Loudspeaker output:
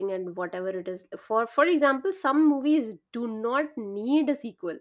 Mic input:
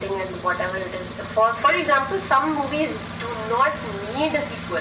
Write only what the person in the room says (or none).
none